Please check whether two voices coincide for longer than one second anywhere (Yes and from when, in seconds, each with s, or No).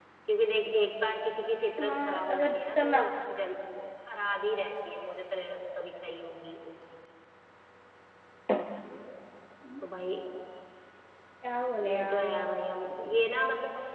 Yes, from 1.8 s